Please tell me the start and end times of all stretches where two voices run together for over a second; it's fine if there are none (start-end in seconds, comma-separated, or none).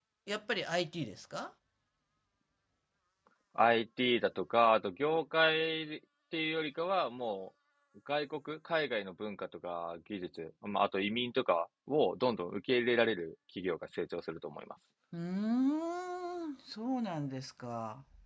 none